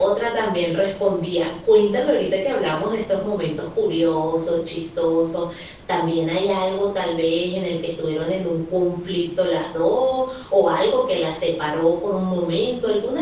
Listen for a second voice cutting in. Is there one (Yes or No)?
No